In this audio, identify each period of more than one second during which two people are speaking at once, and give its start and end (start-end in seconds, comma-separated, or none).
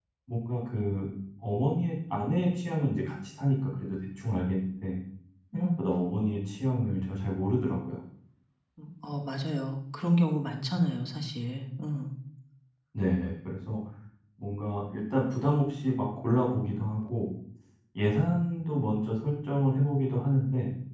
none